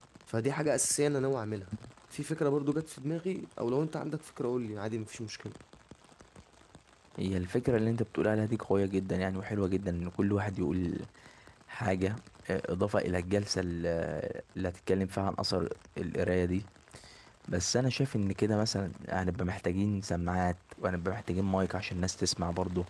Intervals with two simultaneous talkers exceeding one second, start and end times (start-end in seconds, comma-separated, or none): none